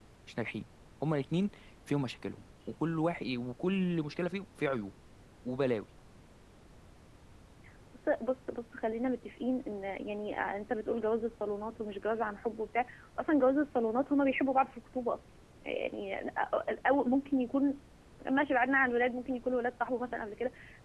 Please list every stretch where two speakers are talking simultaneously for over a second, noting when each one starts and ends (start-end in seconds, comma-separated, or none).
none